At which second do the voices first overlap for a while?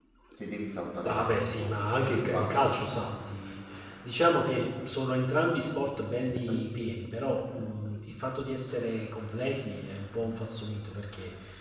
1 s

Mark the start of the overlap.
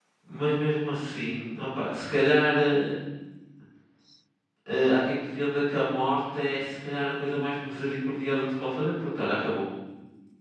none

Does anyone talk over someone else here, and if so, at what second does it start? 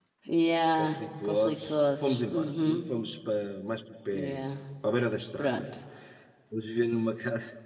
1 s

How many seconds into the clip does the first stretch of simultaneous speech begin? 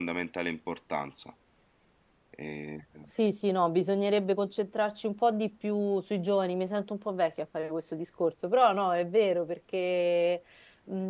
none

